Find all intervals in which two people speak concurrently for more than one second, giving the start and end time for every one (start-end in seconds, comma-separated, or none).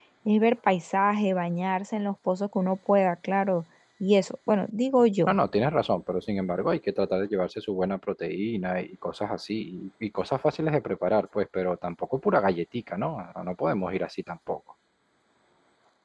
none